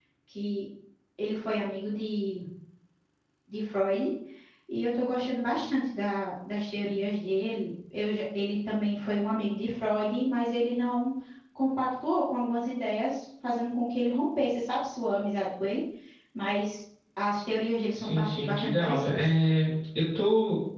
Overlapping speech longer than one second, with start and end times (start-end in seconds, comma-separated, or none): 17.9-19.3